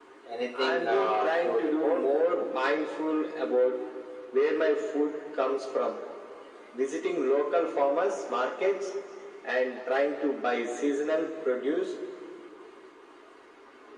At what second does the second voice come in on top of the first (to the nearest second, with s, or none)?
1 s